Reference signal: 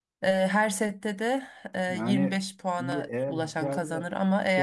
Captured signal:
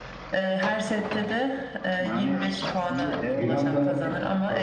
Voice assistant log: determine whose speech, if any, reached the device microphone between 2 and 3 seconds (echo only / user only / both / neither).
echo only